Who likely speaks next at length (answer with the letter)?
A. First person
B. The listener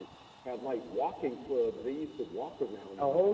B